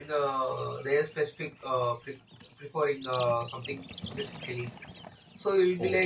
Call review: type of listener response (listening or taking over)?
listening